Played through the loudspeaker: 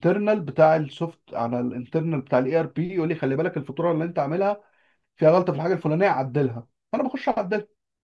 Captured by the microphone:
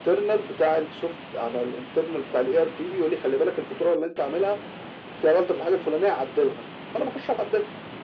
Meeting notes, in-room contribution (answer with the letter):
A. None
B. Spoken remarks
A